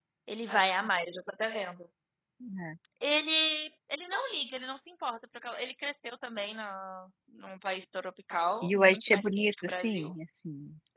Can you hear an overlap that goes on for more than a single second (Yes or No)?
Yes